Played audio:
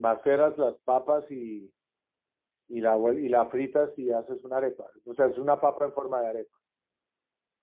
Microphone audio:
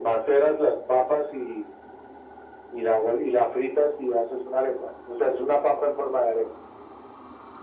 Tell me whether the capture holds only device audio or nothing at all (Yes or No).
Yes